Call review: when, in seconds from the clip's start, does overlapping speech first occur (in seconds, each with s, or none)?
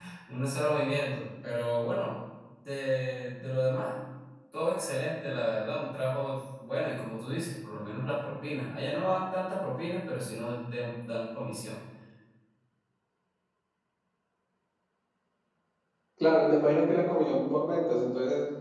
none